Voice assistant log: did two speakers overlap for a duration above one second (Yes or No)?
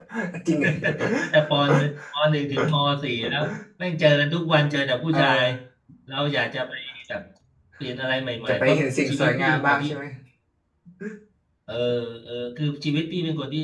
Yes